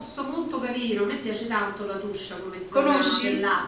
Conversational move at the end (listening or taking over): listening